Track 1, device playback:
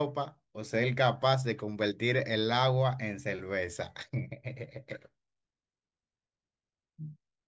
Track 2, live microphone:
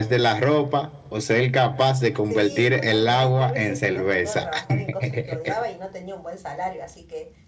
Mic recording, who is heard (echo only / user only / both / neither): both